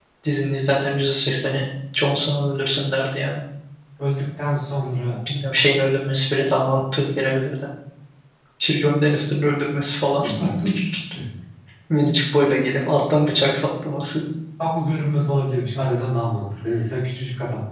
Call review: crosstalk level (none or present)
none